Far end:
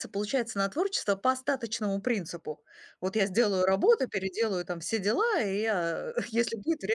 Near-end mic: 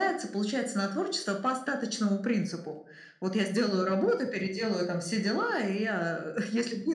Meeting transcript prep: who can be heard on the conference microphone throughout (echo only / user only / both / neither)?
echo only